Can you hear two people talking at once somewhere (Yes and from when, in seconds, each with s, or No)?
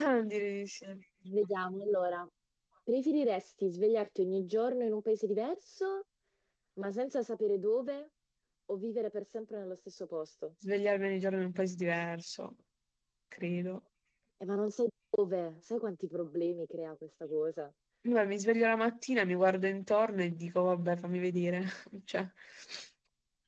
No